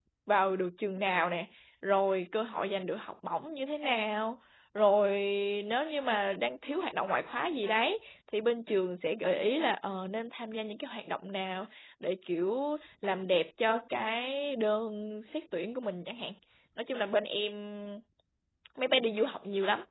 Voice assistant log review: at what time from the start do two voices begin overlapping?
none

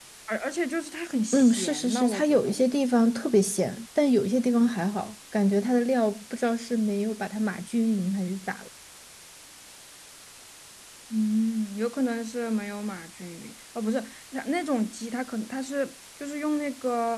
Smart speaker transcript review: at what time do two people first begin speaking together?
1.3 s

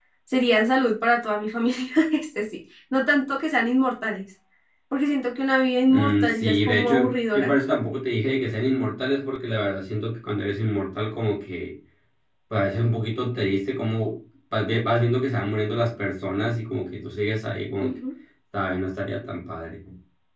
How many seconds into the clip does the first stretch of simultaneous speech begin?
5.9 s

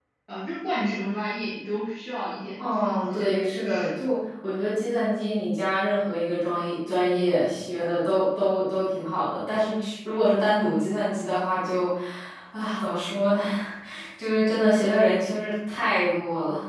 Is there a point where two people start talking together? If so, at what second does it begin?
2.6 s

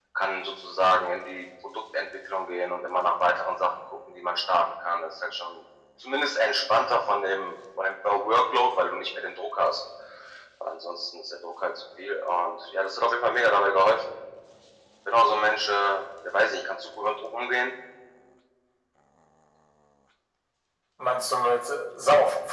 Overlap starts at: none

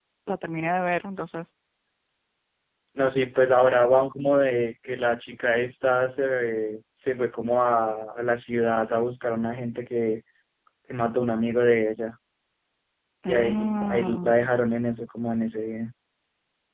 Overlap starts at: 13.3 s

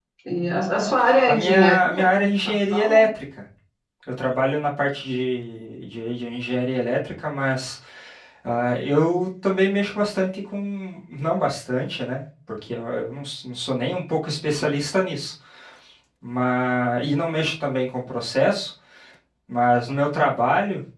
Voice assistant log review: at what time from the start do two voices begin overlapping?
1.3 s

